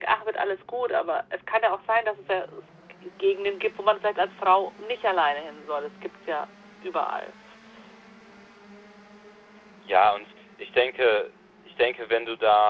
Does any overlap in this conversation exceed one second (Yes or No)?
No